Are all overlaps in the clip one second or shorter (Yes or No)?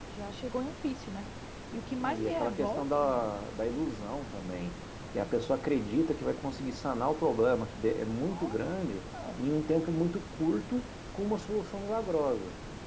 No